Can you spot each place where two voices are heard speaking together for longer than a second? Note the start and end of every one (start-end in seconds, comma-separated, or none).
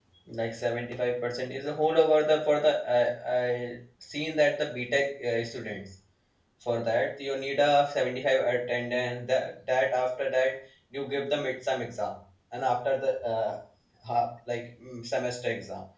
none